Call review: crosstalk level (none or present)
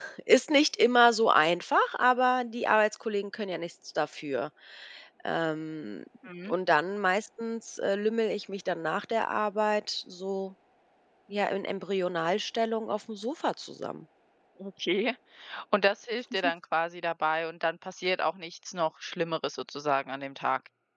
none